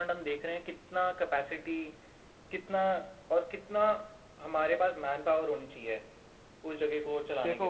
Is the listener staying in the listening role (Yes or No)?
No